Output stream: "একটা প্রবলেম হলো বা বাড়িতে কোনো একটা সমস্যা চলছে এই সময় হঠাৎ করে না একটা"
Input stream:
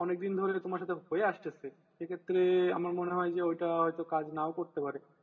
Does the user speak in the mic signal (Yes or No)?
Yes